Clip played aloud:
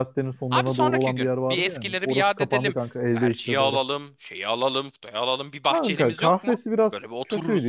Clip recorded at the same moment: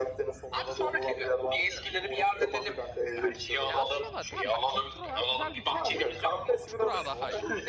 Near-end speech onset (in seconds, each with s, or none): 3.7 s